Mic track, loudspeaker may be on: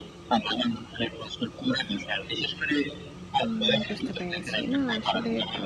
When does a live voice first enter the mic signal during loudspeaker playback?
3.4 s

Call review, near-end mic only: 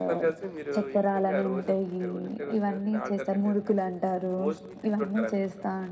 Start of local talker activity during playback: none

